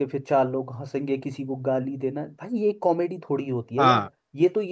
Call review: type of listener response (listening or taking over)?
listening